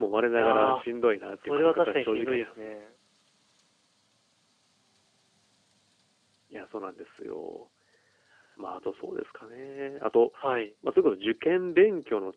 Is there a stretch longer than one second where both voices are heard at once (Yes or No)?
Yes